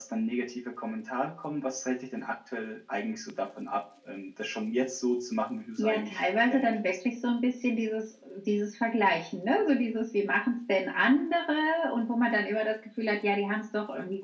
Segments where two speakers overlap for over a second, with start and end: 5.8-7.0

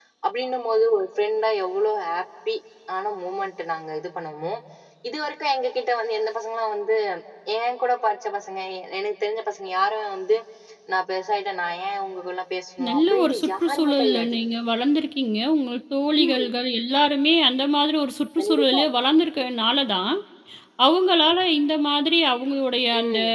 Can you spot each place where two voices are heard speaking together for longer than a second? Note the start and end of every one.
12.9-14.3

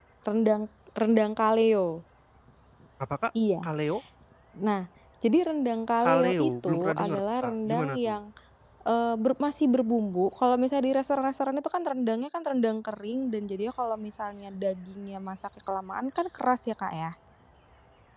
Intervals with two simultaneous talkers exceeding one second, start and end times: 6.0-8.2

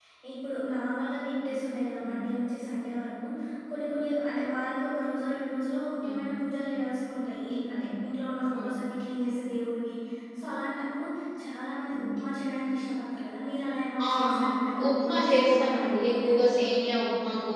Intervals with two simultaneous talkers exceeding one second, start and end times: 14.9-16.6

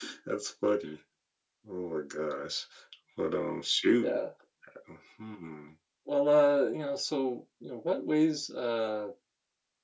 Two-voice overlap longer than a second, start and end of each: none

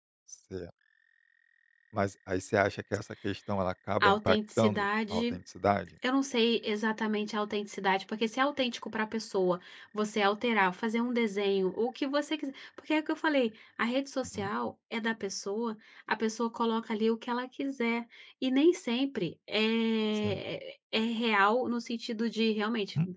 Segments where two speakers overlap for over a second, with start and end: 4.0-5.4

